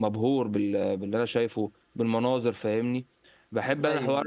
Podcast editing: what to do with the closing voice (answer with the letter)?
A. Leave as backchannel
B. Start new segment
A